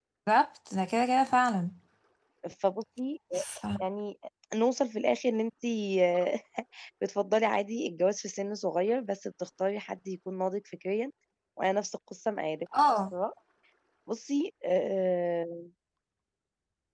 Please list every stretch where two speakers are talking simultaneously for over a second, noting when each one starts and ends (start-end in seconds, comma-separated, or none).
none